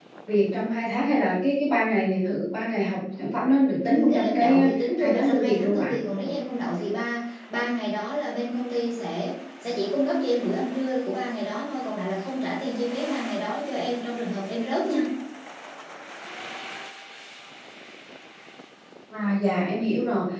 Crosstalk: present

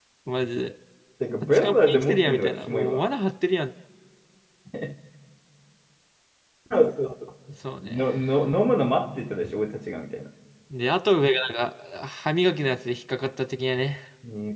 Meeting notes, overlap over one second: present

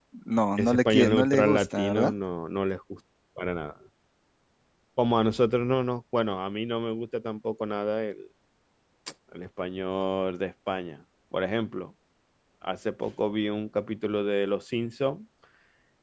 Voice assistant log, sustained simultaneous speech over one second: present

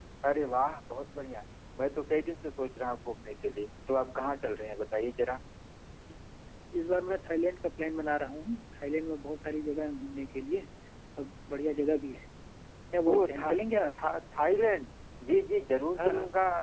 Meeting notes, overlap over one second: none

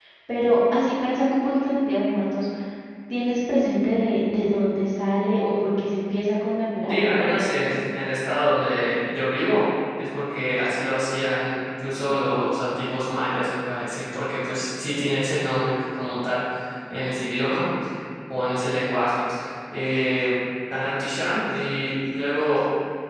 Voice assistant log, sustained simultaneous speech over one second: none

